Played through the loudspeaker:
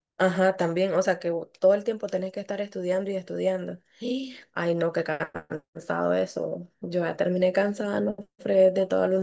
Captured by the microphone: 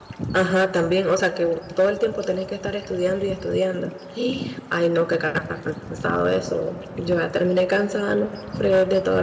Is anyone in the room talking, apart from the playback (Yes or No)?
No